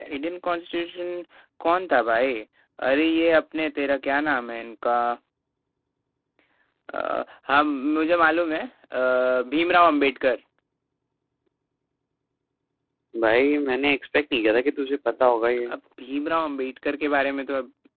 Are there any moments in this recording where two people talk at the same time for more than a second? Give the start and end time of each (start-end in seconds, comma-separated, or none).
none